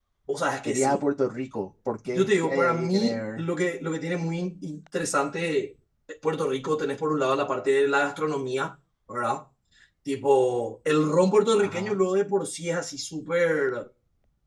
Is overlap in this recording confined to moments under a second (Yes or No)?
No